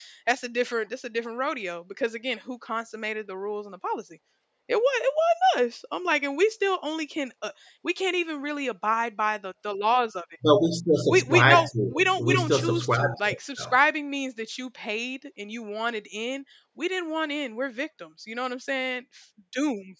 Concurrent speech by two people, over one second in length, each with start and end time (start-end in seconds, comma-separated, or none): 11.1-13.7